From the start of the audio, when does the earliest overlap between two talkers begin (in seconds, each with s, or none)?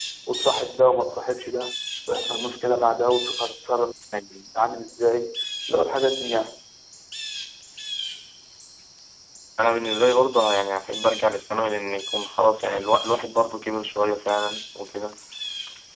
none